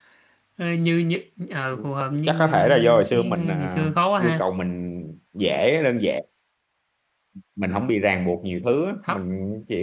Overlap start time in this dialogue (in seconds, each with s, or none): 2.3 s